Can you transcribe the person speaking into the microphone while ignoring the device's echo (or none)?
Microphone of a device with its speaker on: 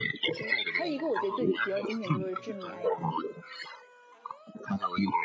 对，还有一个我觉得最比较经典就是《致命 ID》，